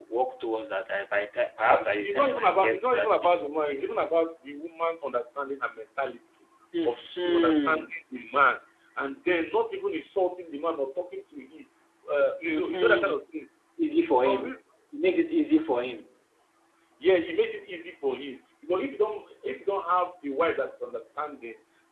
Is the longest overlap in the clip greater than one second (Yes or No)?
Yes